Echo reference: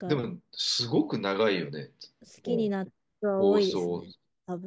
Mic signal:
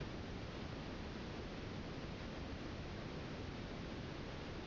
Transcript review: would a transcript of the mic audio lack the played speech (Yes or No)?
Yes